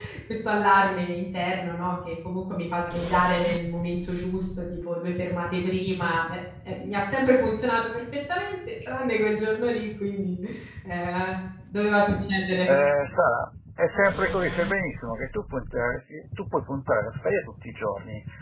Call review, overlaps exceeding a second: none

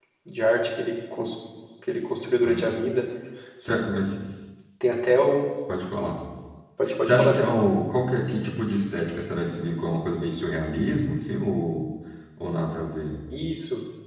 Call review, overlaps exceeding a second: none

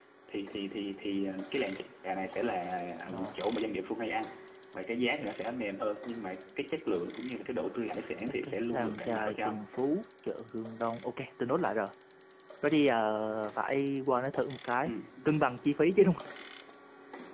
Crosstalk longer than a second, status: present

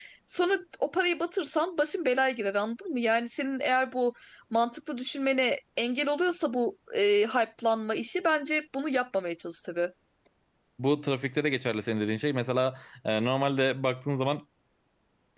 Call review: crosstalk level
none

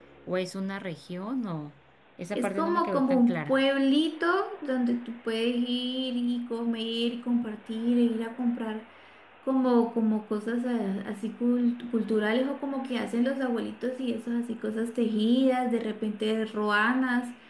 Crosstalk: present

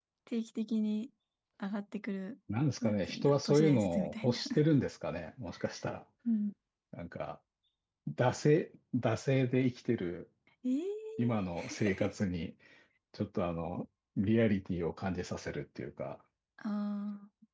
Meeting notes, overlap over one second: present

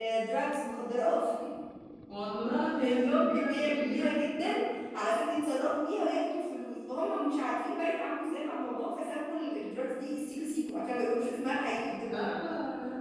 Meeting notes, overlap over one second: present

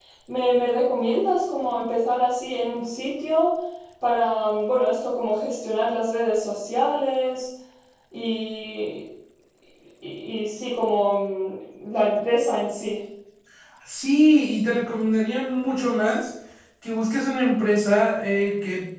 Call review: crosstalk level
none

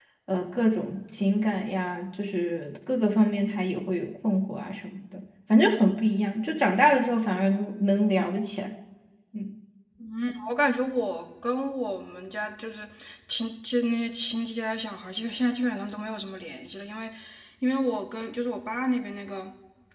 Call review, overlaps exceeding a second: none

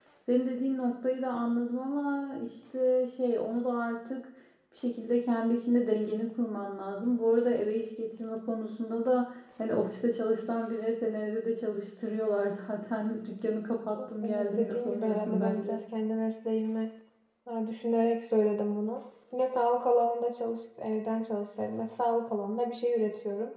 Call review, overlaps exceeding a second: present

